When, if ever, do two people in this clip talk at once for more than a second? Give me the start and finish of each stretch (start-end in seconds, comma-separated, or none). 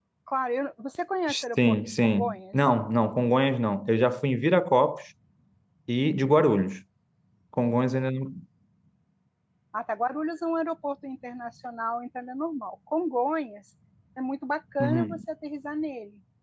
1.3-2.5